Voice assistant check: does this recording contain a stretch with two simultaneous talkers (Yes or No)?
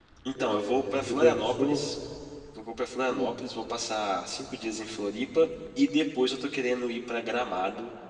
Yes